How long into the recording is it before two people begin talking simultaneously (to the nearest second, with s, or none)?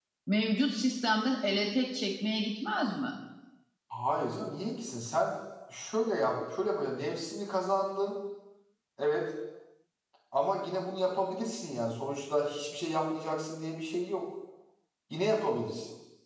none